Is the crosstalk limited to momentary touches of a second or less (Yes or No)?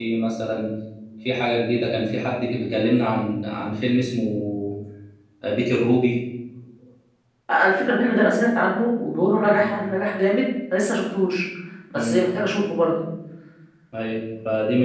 Yes